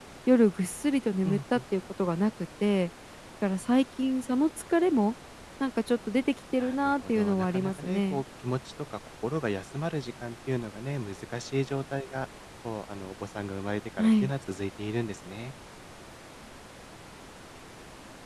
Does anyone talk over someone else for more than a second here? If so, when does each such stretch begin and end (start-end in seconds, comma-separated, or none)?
6.6-8.2